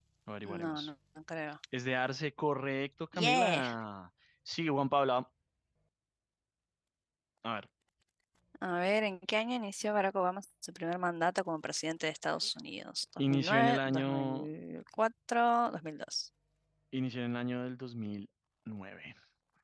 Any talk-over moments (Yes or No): Yes